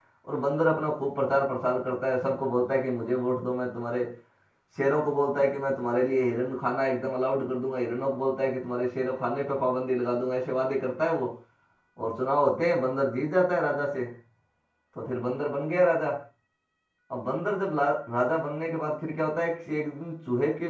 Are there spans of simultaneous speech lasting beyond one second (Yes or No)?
No